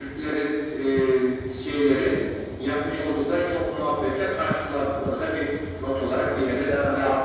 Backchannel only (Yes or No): No